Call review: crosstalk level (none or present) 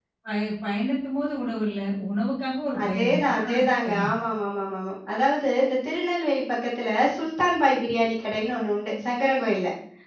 present